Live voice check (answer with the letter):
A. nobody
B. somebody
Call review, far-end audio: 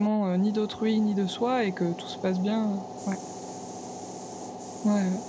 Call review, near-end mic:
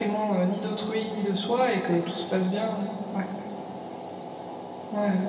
A